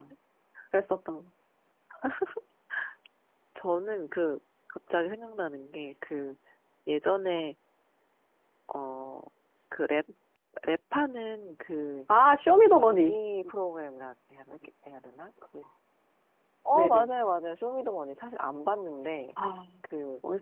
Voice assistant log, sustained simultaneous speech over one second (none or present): none